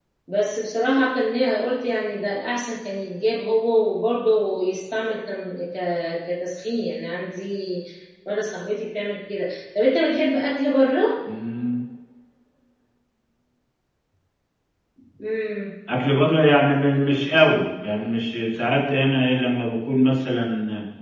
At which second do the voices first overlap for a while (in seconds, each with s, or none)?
none